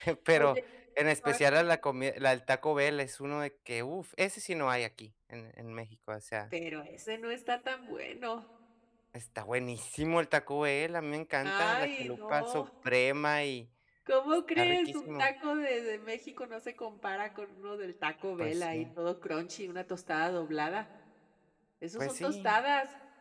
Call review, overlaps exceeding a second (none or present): present